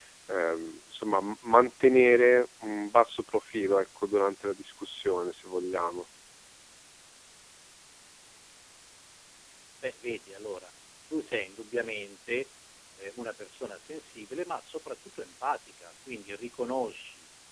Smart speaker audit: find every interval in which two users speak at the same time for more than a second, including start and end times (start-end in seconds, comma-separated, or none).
none